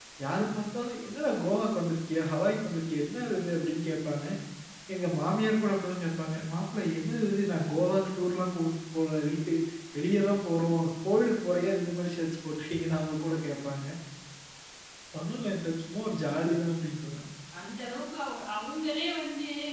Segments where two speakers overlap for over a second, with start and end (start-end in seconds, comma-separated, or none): none